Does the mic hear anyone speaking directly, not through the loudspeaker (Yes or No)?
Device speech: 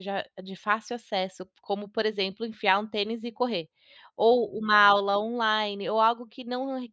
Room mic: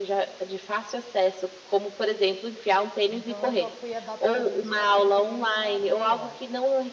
Yes